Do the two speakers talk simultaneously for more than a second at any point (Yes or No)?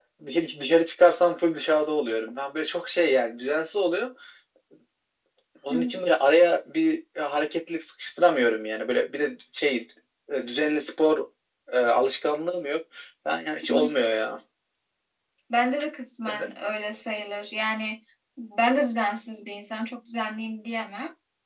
No